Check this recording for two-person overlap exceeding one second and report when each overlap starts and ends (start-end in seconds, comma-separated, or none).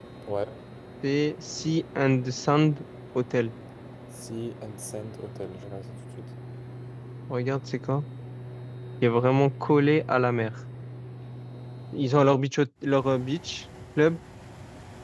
none